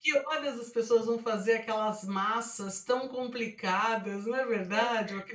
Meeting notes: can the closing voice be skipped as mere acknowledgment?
No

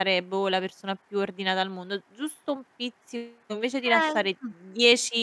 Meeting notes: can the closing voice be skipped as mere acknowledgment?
Yes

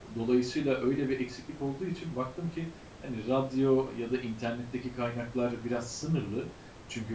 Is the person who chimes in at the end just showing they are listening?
Yes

